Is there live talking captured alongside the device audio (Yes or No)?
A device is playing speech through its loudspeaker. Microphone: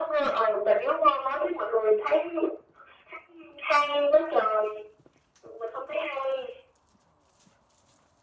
No